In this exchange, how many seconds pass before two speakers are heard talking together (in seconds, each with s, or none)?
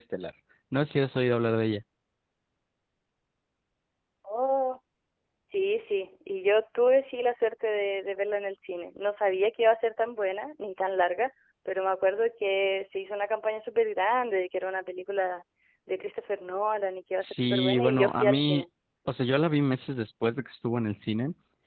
17.2 s